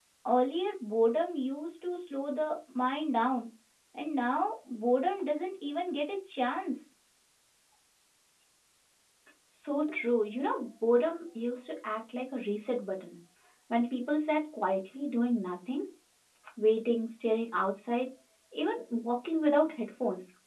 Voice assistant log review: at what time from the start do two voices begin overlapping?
none

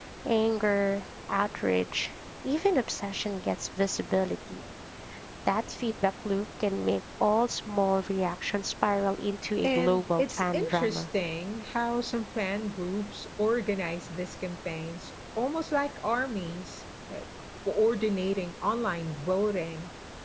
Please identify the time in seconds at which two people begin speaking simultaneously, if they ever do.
9.6 s

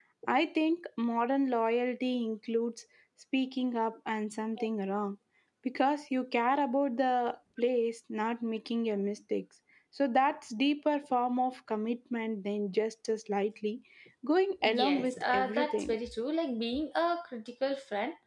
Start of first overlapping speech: 14.6 s

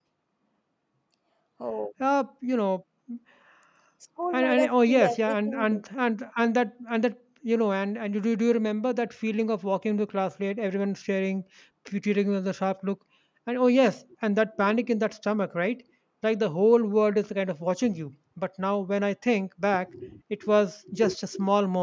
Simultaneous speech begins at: 4.3 s

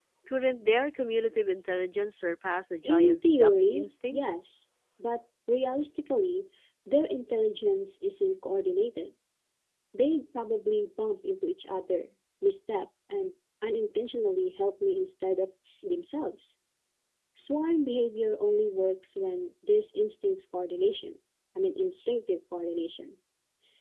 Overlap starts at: 2.8 s

